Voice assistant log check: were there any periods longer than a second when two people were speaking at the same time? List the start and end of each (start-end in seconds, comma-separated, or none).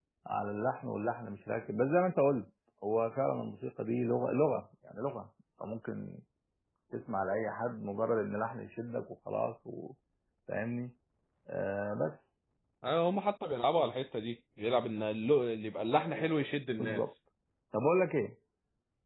none